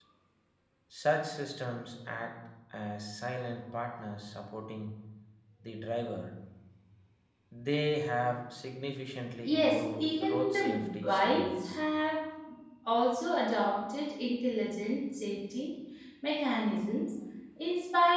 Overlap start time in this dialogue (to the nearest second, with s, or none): 9 s